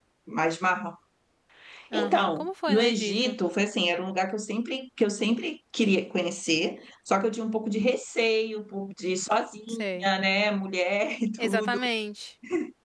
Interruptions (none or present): present